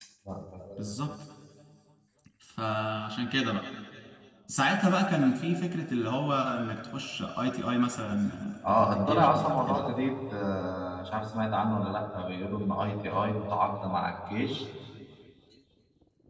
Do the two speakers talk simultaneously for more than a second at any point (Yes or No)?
Yes